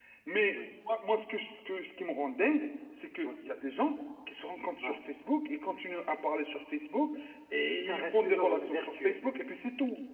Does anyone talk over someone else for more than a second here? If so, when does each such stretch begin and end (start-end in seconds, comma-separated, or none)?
7.8-9.2